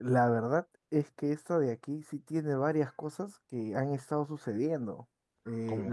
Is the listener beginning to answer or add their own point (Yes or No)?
No